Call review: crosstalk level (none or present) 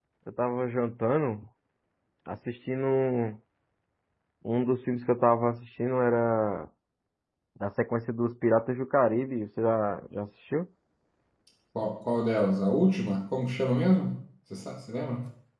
none